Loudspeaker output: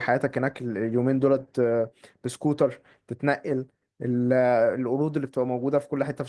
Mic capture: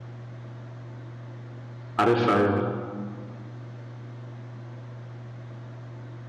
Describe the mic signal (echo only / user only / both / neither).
user only